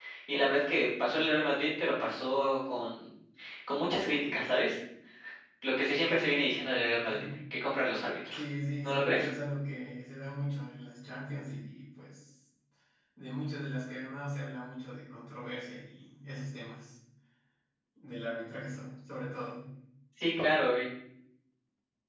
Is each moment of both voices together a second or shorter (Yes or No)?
Yes